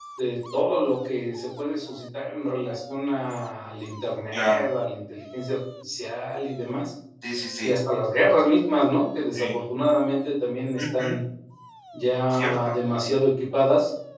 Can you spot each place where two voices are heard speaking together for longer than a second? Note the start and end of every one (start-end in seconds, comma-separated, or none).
none